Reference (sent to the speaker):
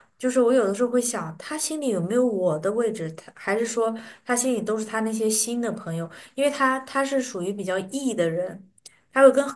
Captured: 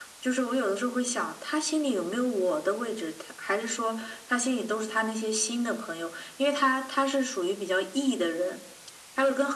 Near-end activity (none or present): none